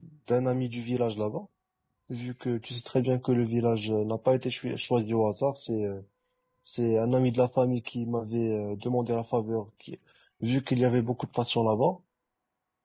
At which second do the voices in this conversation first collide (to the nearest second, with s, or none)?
none